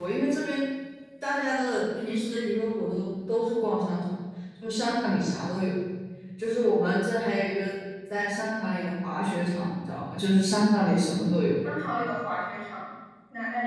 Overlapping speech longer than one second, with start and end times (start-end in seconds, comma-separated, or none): none